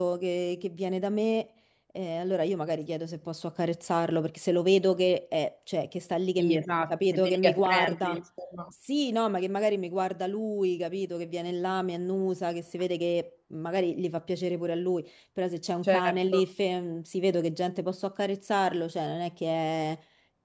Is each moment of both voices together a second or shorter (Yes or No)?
No